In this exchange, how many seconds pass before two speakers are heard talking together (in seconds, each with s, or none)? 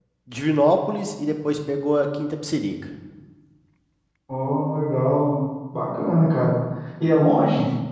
none